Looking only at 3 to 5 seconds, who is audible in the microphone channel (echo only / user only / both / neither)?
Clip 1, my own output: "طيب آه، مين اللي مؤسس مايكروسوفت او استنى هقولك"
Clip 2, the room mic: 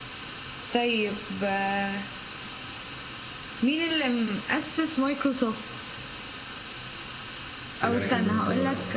echo only